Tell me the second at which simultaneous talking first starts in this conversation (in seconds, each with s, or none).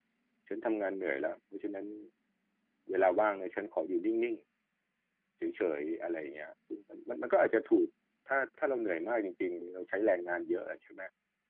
none